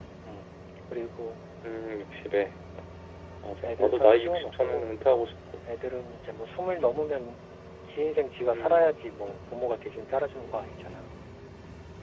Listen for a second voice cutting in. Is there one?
Yes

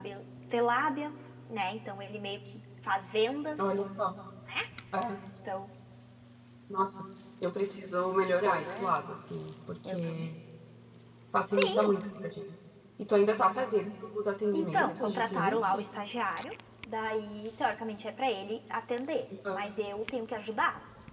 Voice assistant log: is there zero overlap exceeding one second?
No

